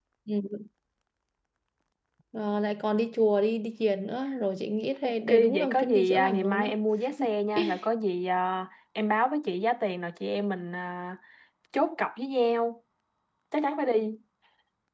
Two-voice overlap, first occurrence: 5.0 s

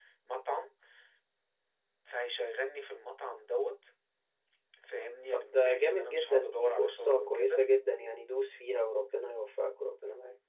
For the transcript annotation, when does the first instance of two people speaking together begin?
5.3 s

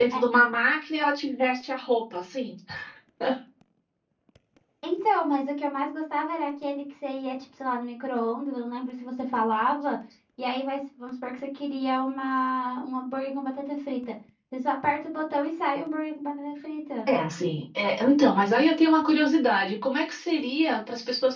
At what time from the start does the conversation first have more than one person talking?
none

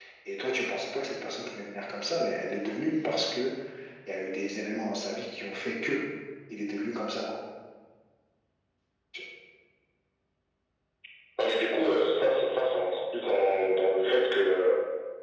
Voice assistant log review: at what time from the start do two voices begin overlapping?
none

